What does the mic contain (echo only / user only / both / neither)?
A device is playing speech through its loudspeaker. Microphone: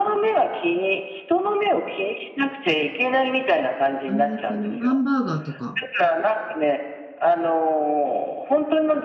both